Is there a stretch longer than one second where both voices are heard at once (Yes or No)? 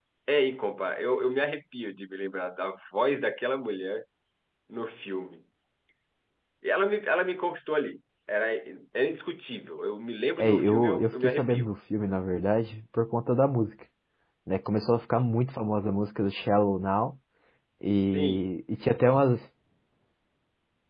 Yes